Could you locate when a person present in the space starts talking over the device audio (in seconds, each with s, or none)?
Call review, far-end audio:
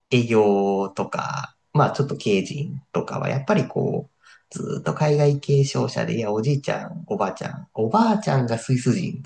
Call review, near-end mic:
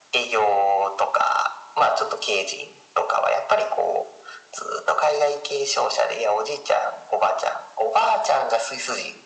none